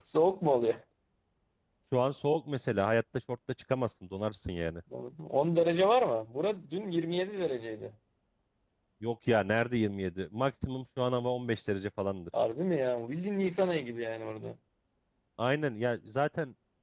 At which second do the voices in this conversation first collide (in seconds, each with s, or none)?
none